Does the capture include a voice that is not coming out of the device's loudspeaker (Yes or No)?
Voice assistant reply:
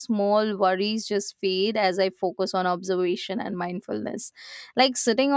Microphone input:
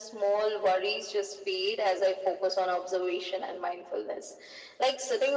No